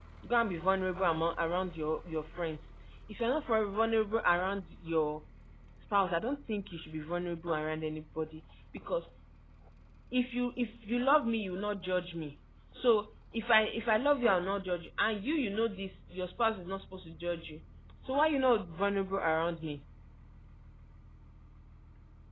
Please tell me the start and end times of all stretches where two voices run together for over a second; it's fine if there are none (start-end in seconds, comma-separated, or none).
none